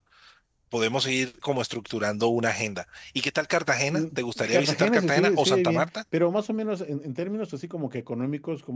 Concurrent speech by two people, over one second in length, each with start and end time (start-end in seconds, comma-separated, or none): 4.4-5.9